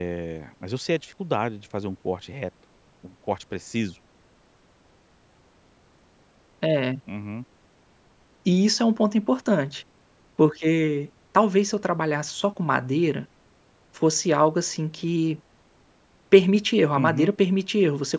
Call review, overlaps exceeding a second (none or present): none